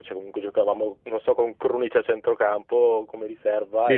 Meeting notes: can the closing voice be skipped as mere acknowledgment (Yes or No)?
Yes